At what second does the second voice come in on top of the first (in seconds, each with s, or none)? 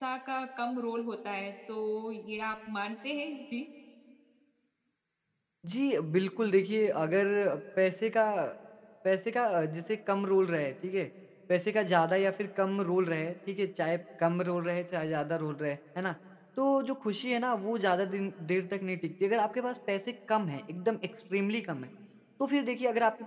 none